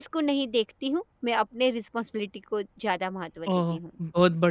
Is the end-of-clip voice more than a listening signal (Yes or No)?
Yes